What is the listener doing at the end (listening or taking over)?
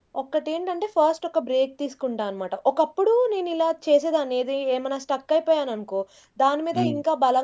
listening